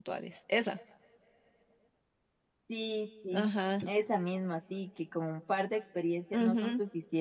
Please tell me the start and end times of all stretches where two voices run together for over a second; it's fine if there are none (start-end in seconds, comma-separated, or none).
none